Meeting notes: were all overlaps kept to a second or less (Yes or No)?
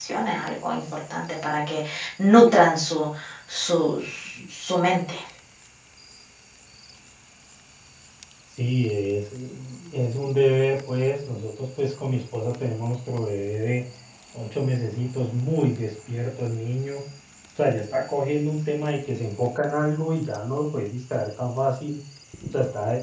Yes